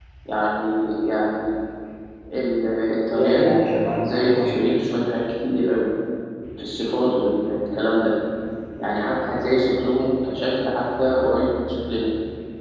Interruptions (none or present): present